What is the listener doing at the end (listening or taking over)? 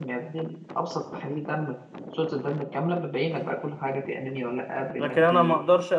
taking over